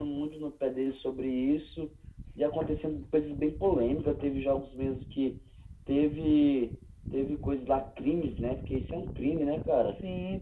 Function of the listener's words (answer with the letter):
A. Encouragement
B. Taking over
B